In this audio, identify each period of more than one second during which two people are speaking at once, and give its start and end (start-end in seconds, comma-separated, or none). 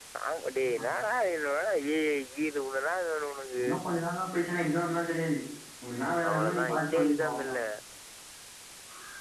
6.3-7.5